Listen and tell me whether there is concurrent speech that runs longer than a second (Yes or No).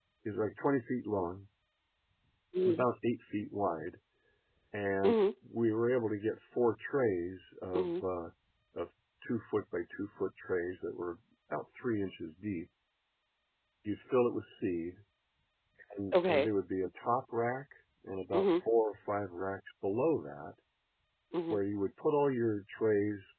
No